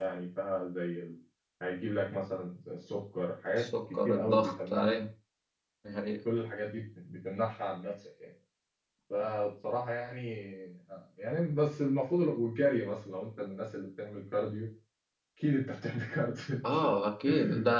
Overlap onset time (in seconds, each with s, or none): 3.6 s